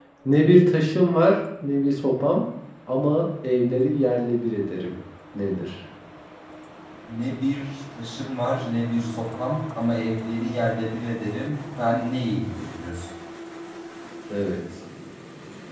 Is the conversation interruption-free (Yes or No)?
Yes